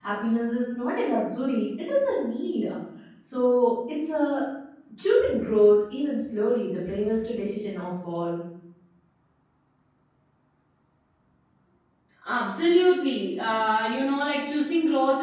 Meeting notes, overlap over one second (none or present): none